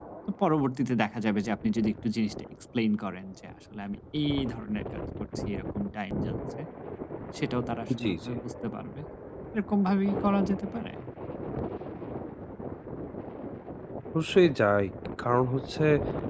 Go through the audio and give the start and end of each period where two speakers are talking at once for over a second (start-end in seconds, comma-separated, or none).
none